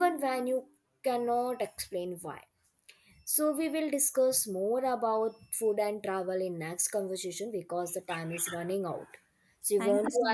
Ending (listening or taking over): taking over